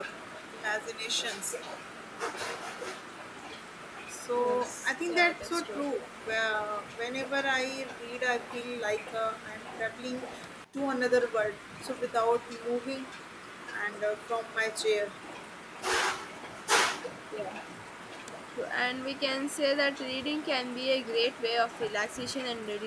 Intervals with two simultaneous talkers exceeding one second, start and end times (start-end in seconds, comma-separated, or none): 4.4-5.8